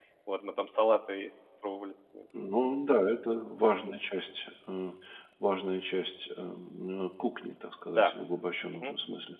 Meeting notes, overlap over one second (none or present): none